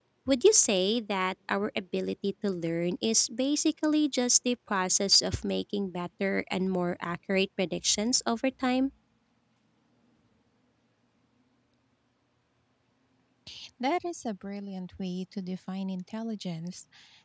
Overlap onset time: none

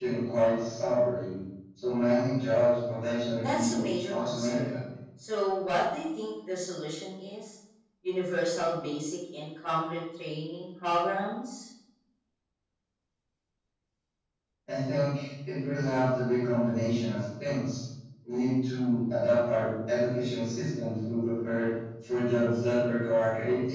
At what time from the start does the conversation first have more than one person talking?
3.4 s

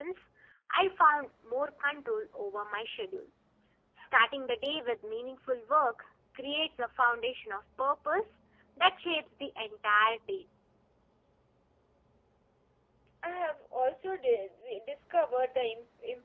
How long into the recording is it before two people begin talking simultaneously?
none

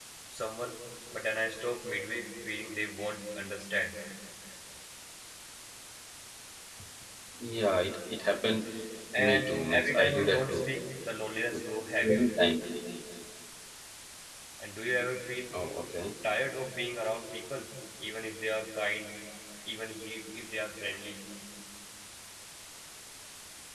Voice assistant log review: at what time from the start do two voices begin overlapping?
9.2 s

